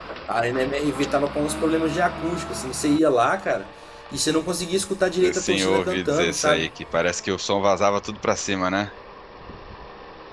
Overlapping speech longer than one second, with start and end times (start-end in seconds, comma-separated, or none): 5.3-6.7